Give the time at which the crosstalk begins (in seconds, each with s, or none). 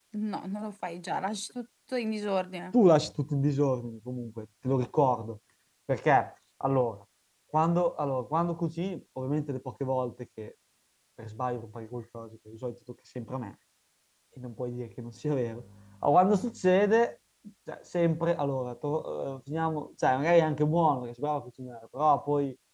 none